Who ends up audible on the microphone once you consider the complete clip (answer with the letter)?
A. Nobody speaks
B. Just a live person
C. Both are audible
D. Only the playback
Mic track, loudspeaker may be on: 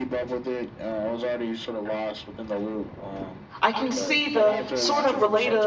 C